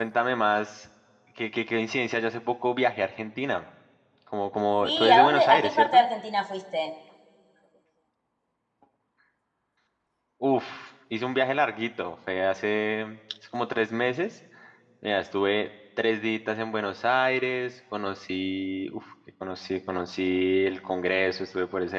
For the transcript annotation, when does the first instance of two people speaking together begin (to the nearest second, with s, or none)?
5 s